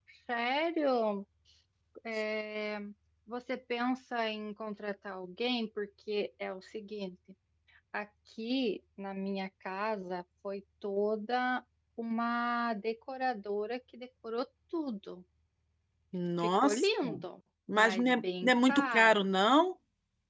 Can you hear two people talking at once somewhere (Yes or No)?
Yes